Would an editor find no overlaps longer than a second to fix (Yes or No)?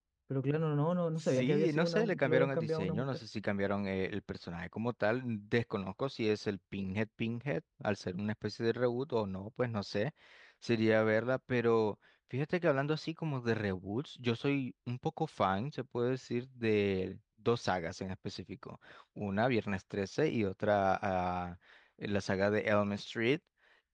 No